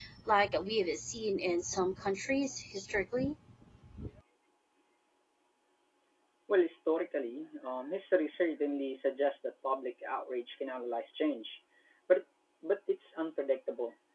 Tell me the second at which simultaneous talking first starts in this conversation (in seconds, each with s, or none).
none